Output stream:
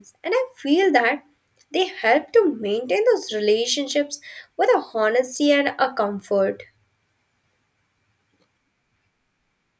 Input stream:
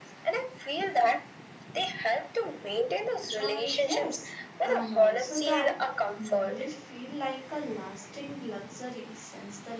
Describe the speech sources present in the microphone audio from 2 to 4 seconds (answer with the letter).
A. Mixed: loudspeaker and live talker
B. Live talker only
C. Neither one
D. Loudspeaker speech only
A